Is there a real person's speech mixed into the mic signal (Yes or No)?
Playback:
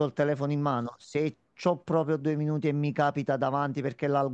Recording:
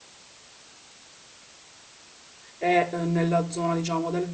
Yes